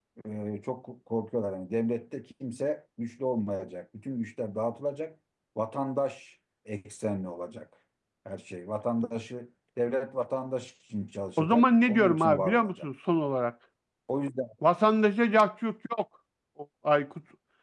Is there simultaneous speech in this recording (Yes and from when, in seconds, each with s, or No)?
Yes, from 11.4 s